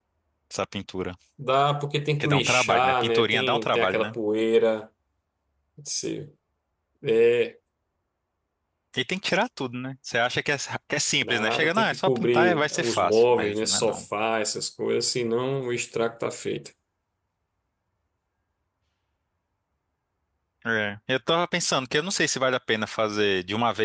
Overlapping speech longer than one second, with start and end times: 2.2-4.2, 11.2-14.1

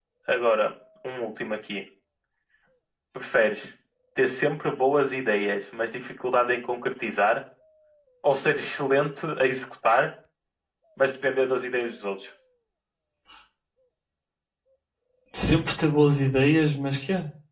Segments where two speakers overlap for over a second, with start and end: none

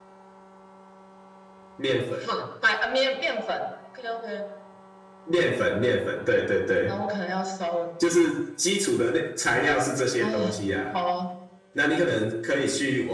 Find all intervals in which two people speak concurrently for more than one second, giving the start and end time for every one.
none

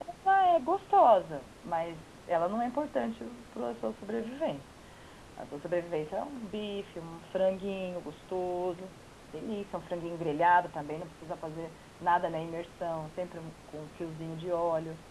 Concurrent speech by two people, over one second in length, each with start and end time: none

